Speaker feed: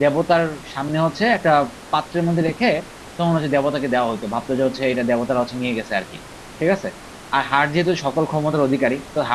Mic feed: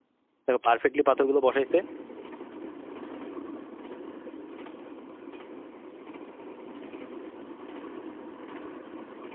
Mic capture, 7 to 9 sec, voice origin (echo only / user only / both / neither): neither